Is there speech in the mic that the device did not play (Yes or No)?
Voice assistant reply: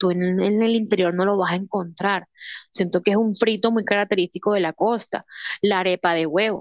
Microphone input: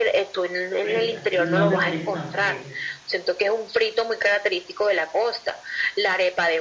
Yes